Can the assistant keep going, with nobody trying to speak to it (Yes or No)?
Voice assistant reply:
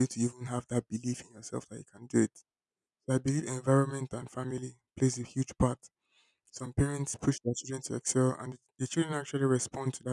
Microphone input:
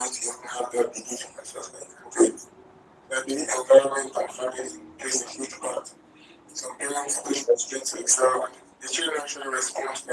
Yes